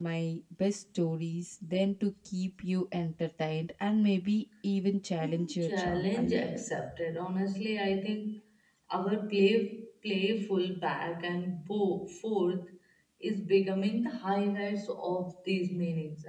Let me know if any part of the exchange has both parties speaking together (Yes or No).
Yes